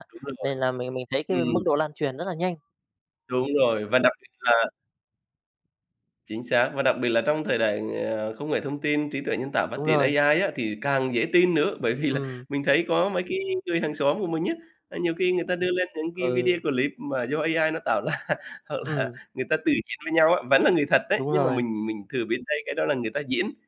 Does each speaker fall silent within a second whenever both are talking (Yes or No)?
Yes